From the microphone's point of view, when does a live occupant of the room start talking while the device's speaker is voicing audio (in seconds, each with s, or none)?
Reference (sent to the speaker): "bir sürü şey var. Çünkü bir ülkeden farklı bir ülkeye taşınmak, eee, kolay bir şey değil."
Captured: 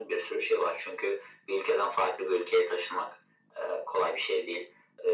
none